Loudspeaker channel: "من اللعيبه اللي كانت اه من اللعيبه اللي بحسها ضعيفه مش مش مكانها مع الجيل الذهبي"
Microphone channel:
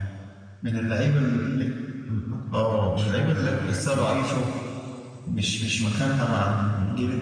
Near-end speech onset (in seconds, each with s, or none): 2.6 s